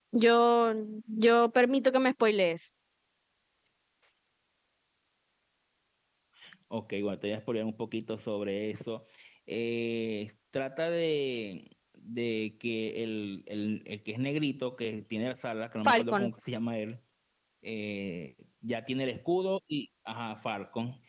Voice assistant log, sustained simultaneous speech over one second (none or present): none